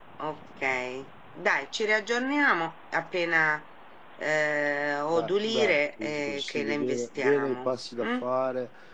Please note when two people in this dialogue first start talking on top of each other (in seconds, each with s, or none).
5.1 s